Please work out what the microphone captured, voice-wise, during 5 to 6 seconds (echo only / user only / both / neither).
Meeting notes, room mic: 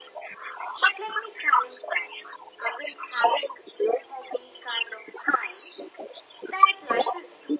echo only